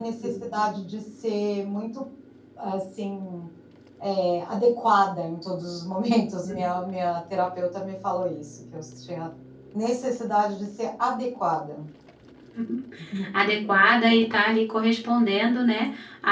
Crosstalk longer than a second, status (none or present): none